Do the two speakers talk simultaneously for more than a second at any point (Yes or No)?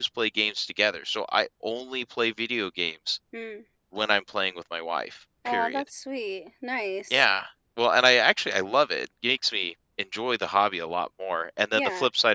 No